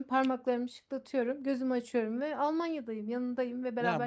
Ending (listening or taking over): taking over